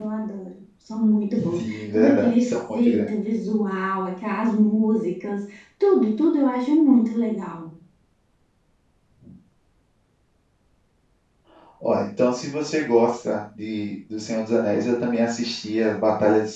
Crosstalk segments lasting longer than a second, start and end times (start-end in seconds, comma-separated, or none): 1.6-3.1